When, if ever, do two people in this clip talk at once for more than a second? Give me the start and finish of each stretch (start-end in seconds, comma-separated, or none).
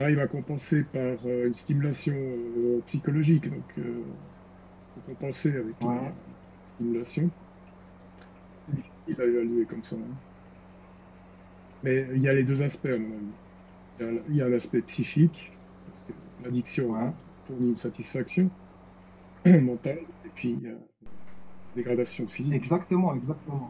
none